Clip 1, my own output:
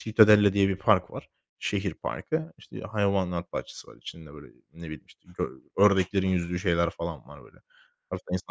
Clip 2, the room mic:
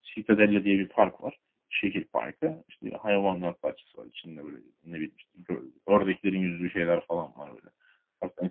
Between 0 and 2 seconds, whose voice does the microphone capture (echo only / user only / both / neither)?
echo only